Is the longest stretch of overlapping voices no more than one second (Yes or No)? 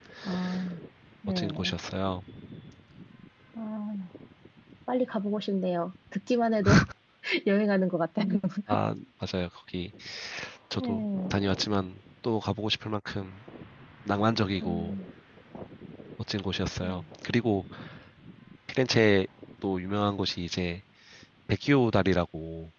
Yes